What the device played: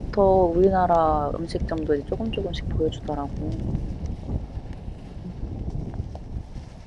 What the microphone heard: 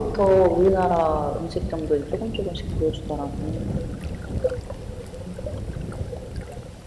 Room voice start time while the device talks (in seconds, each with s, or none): none